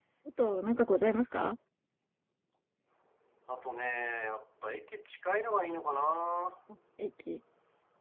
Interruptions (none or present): none